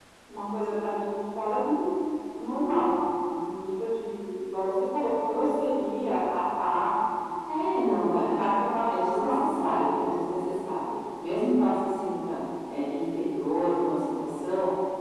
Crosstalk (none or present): present